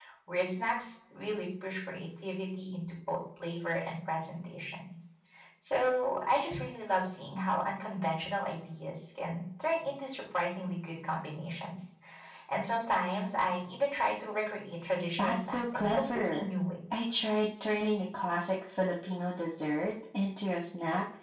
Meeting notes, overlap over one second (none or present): present